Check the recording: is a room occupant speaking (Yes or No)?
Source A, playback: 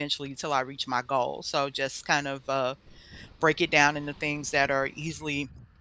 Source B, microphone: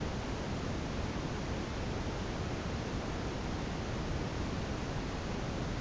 No